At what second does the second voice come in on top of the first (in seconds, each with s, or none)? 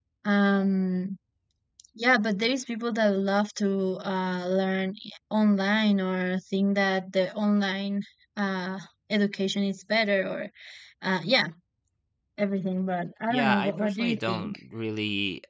13.3 s